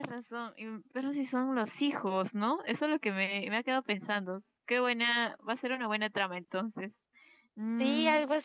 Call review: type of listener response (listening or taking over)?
taking over